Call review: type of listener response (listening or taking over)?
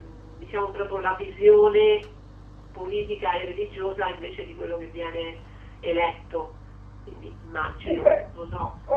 taking over